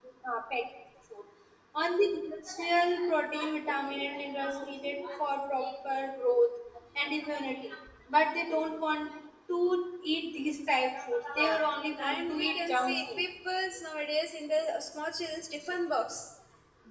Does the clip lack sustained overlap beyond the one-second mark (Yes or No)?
No